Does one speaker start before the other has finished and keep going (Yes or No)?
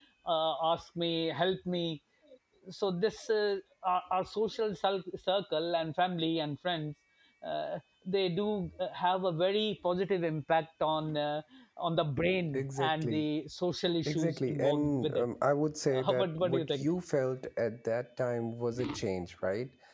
Yes